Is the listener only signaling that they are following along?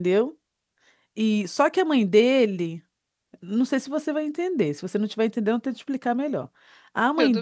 Yes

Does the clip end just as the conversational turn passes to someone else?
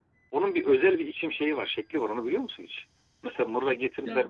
No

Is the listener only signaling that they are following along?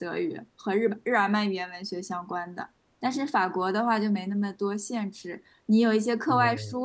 Yes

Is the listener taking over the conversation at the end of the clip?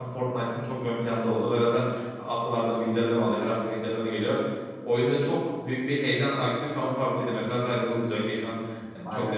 No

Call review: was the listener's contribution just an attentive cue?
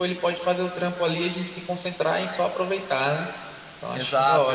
No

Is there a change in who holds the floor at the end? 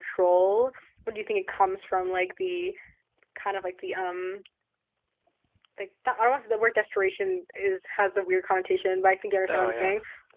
No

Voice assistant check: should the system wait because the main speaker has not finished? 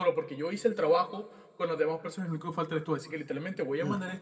Yes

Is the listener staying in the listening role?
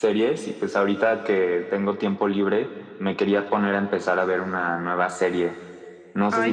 Yes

